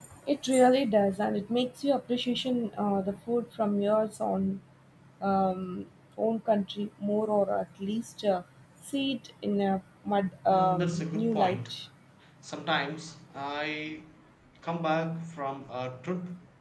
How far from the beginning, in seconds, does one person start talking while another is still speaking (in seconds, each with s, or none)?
10.5 s